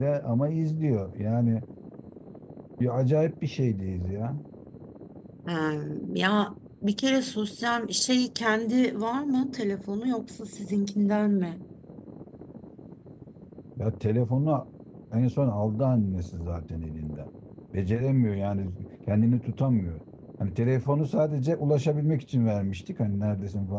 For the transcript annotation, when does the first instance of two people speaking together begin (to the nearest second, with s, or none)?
none